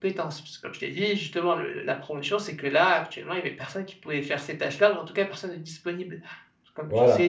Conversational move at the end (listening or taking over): listening